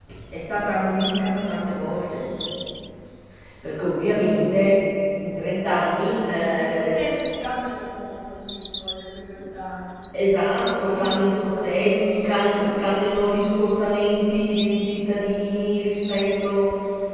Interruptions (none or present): present